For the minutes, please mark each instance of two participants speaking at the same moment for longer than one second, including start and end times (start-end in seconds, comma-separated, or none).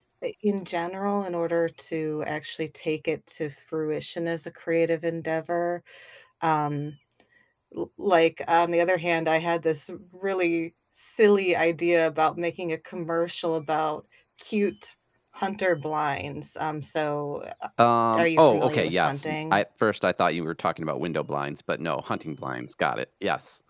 18.2-19.6